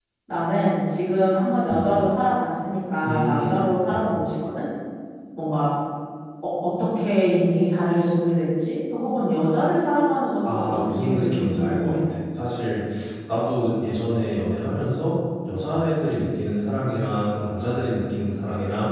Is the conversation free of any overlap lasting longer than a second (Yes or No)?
No